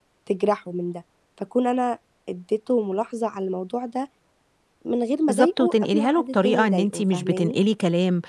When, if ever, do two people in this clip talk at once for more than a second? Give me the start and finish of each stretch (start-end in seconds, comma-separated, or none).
5.3-7.6